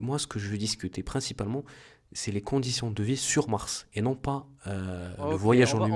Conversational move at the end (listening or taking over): taking over